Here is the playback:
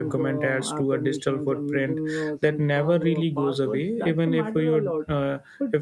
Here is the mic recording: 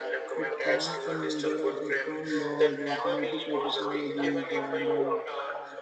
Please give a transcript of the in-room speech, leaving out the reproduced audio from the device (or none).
like strong some there are some strong laws or some ethical technologies and uh,